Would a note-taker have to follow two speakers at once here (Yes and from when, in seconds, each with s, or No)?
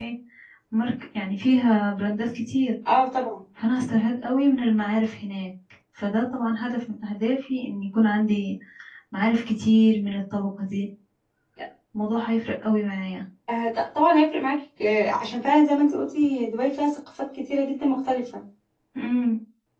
No